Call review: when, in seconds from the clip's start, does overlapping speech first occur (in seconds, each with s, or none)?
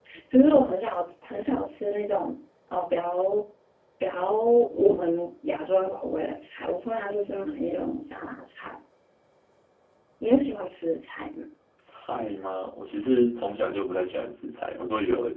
none